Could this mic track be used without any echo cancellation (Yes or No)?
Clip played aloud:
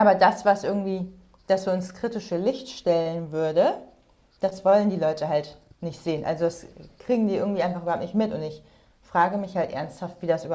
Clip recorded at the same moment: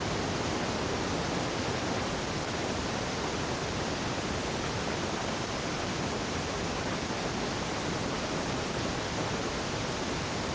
Yes